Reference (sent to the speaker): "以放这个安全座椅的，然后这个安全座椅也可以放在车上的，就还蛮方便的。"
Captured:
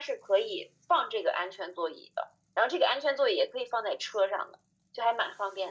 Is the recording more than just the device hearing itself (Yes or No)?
No